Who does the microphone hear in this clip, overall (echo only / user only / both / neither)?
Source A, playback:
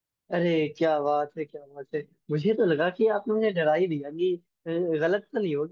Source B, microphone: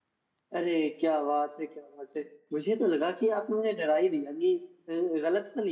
echo only